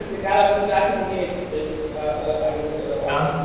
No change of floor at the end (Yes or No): No